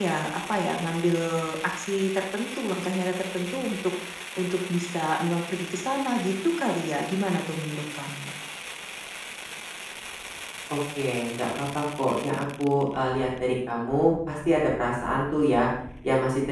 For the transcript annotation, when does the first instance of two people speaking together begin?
none

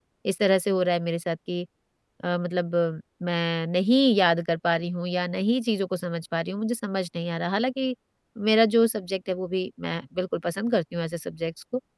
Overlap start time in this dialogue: none

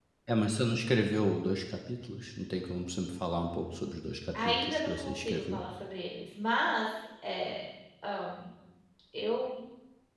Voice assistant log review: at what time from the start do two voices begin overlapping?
4 s

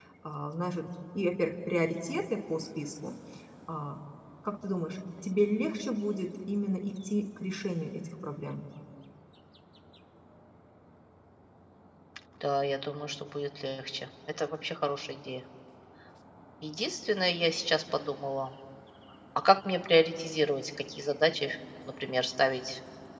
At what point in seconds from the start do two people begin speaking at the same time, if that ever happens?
none

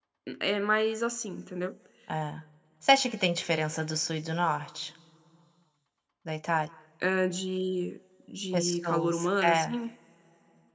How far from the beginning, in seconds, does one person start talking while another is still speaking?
9 s

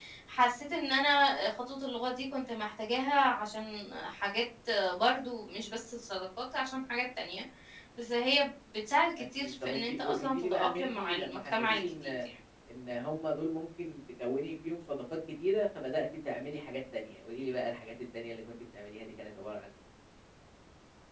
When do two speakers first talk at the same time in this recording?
9 s

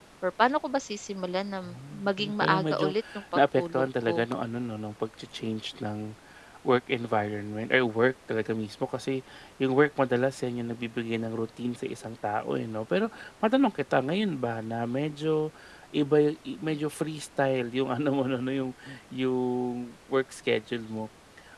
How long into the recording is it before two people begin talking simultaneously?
2 s

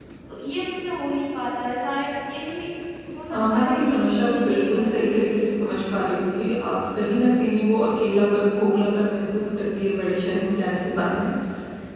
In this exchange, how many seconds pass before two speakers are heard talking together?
3 s

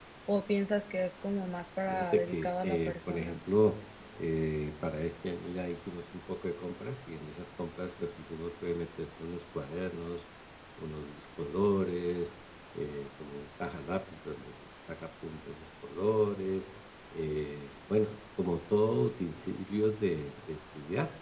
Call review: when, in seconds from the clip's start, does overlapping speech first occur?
2 s

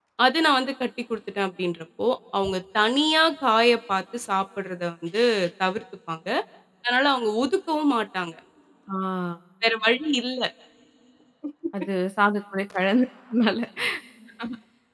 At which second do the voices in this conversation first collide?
none

